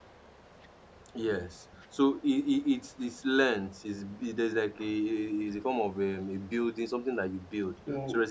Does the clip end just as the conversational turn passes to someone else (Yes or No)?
No